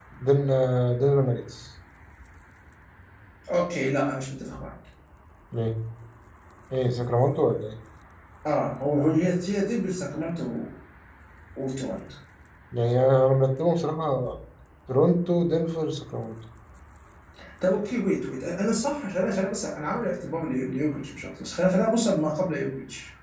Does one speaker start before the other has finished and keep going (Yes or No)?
No